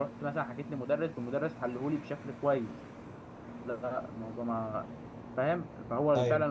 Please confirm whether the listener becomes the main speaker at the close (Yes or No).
No